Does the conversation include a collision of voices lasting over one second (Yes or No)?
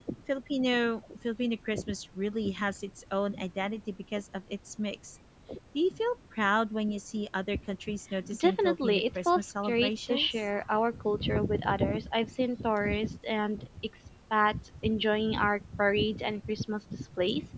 Yes